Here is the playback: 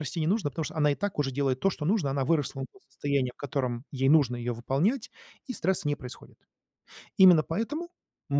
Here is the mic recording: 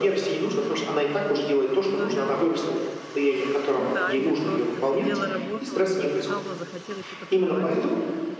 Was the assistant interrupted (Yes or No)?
Yes